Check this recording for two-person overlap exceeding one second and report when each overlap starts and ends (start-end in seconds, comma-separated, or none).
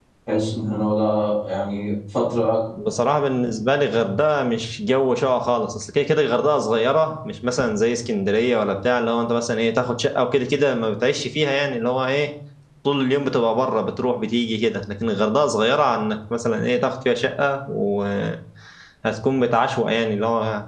none